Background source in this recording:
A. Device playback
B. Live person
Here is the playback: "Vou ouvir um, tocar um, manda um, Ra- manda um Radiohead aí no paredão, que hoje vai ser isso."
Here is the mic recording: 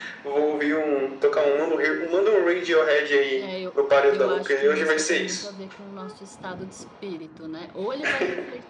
B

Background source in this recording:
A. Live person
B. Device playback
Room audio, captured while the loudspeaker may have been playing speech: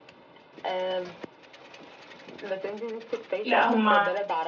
B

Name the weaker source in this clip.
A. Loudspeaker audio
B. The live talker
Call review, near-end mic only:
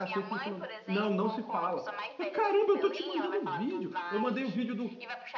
A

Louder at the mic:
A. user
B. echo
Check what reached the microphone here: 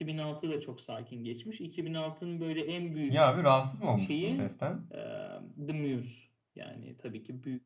A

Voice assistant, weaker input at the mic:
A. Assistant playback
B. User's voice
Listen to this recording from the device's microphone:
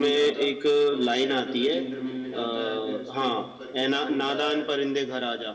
A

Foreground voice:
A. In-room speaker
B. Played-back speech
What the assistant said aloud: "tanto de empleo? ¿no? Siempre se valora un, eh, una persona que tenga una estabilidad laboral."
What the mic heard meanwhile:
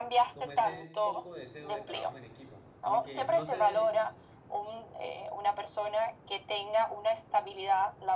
B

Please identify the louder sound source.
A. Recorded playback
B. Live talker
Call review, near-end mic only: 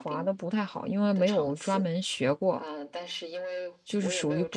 B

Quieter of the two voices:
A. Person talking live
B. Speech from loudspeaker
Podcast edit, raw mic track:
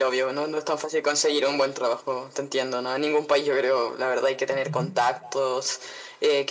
A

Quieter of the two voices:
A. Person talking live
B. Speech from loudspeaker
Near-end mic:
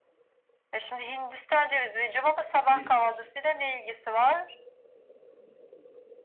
A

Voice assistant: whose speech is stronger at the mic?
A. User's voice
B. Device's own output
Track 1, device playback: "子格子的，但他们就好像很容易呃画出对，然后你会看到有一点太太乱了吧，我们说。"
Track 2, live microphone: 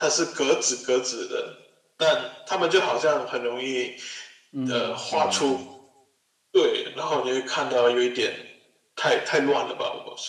B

